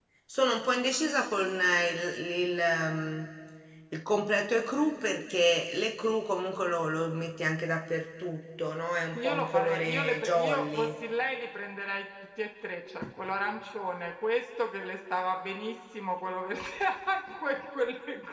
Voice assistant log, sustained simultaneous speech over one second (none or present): present